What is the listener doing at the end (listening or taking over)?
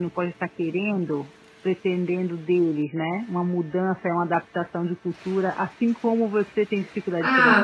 taking over